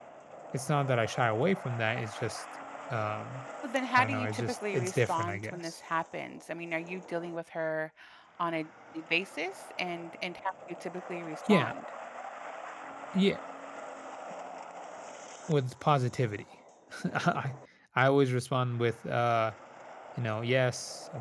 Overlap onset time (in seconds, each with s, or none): 4.0 s